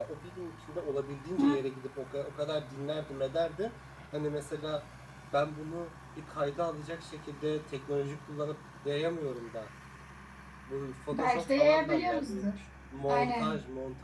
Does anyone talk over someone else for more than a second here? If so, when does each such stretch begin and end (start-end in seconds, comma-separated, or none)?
11.1-12.4